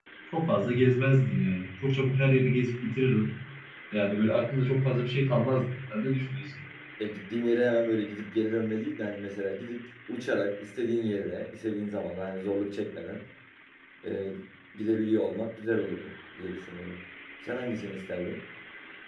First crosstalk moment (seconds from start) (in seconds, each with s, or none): none